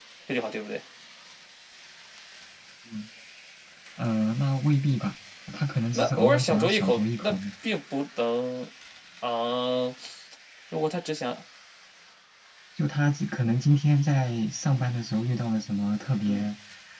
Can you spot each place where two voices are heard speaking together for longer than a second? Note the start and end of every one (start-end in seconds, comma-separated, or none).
5.9-7.3